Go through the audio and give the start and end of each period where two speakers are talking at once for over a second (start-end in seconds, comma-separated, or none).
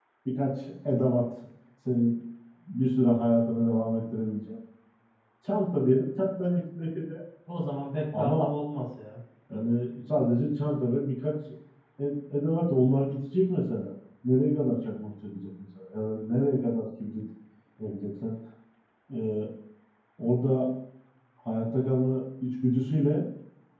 none